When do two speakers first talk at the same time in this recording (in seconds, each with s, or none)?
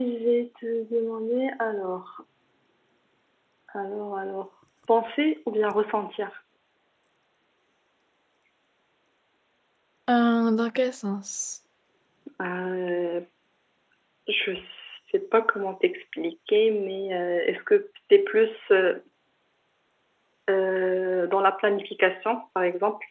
none